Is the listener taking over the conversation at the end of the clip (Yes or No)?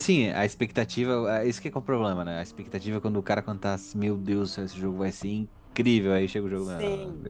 Yes